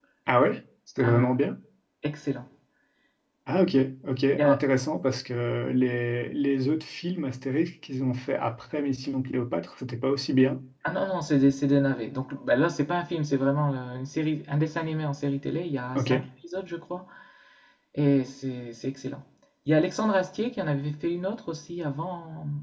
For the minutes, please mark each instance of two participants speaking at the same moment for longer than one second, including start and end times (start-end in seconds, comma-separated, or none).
none